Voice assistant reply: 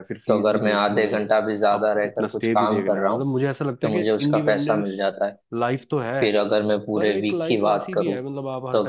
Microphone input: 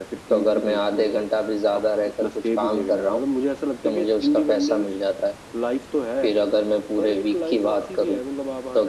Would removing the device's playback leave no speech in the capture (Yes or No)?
Yes